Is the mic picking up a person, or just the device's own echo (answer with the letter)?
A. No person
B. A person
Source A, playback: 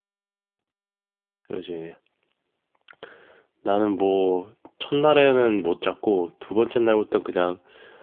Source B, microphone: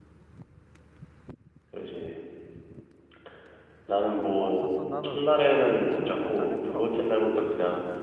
B